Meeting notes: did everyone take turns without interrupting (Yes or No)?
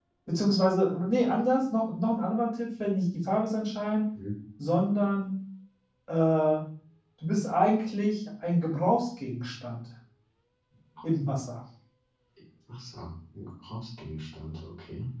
Yes